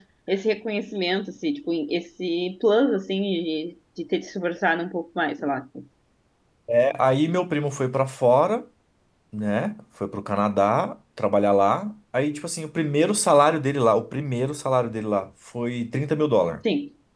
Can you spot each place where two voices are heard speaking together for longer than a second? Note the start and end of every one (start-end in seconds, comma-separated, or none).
none